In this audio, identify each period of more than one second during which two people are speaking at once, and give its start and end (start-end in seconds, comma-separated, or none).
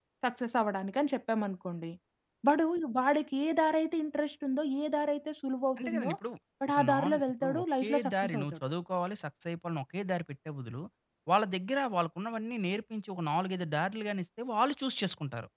6.7-8.5